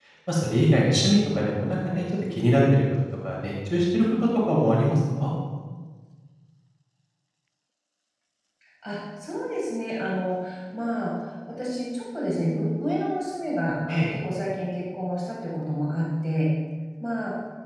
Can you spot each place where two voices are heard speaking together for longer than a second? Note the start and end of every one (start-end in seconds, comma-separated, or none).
none